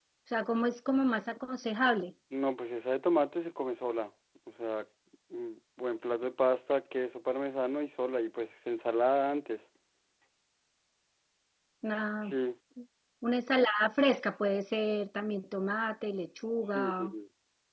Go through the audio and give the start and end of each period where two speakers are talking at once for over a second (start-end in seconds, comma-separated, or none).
none